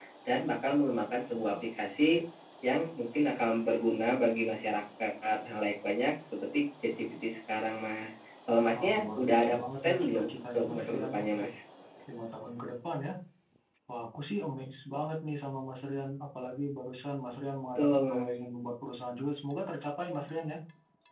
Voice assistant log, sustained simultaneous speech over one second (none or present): present